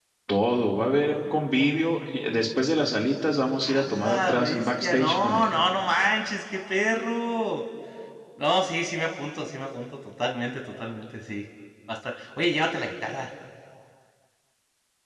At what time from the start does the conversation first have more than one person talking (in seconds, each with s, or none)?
3.6 s